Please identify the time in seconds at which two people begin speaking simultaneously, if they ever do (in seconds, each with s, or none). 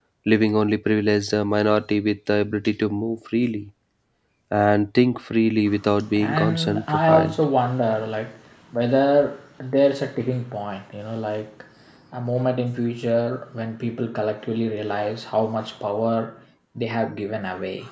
6.2 s